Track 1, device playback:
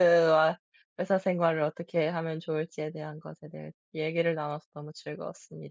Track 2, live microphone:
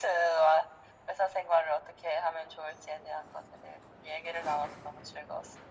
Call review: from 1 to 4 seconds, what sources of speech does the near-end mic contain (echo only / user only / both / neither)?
echo only